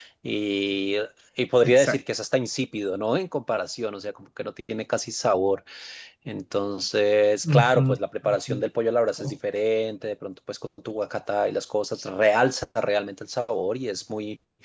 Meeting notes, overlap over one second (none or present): none